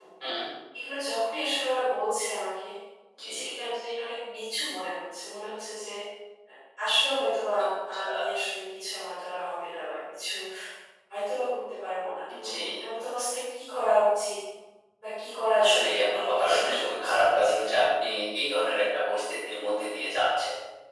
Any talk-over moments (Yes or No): Yes